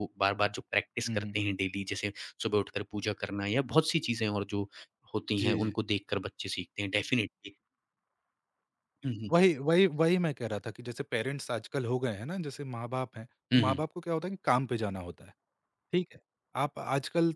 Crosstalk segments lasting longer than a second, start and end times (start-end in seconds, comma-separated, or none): none